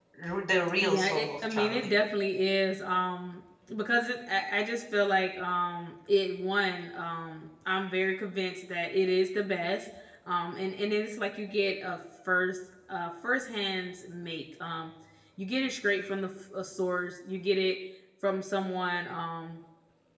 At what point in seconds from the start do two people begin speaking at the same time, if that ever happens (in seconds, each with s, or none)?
0.8 s